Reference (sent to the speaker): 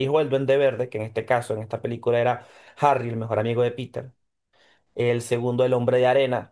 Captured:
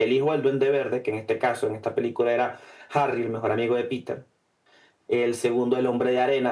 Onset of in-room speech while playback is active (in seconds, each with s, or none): none